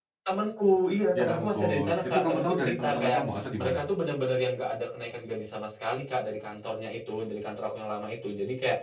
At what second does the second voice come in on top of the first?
1 s

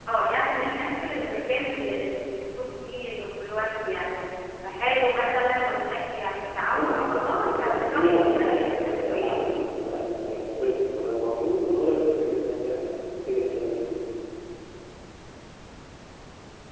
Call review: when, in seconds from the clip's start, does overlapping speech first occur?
7 s

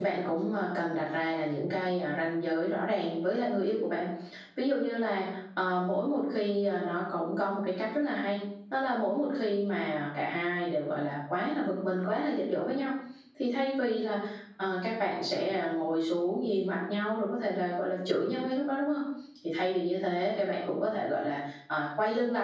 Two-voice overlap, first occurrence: none

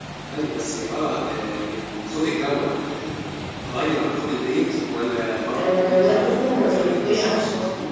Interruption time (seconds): 6 s

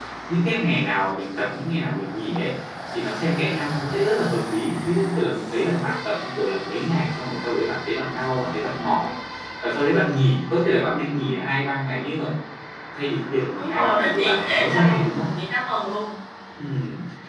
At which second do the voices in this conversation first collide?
14 s

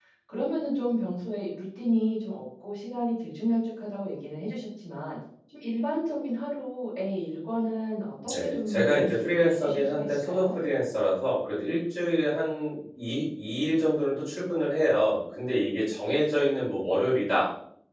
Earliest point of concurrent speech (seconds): 8 s

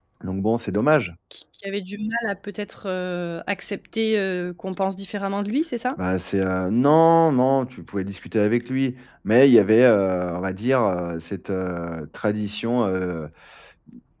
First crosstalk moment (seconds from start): none

